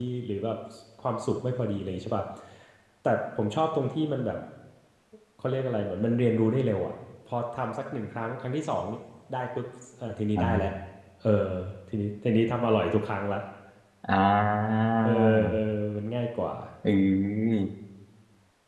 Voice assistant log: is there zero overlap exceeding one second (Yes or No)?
Yes